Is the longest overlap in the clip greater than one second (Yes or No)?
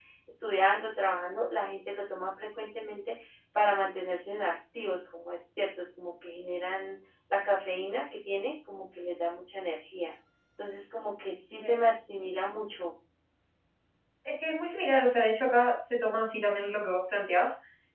No